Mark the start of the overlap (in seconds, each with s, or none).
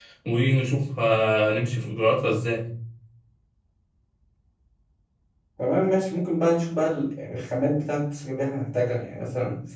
none